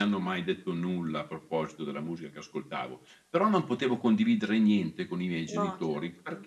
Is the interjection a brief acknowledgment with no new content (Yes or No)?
Yes